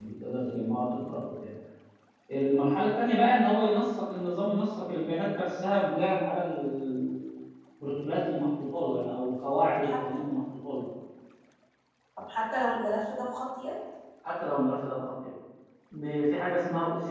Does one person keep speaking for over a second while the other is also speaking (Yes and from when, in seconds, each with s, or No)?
No